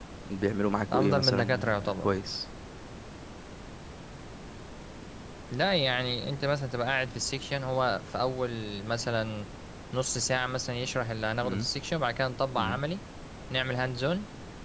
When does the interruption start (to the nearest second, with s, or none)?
1 s